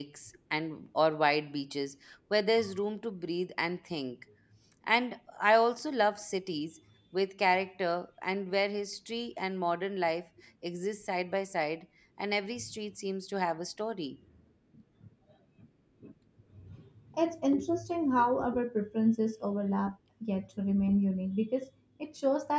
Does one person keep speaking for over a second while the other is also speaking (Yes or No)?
No